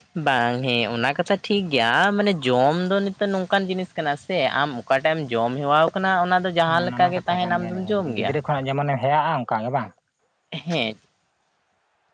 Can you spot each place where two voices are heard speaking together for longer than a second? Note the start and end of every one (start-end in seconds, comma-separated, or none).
6.8-8.3